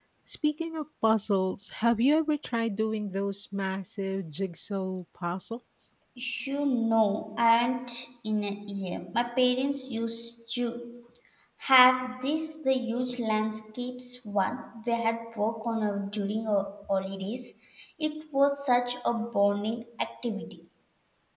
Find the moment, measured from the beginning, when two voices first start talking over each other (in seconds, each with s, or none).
none